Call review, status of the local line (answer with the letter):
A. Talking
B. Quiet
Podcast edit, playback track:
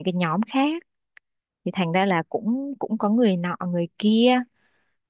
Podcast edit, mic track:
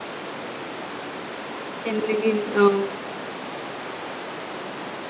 A